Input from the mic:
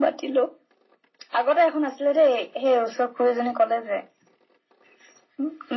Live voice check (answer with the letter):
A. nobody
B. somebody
A